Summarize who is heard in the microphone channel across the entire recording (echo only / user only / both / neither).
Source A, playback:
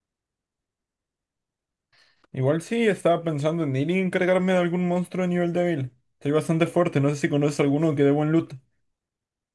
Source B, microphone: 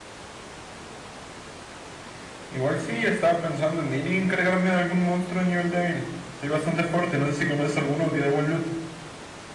echo only